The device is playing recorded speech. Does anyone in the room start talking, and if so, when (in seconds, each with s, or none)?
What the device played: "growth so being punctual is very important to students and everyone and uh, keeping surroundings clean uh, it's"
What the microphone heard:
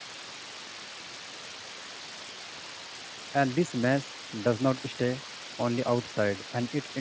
3.3 s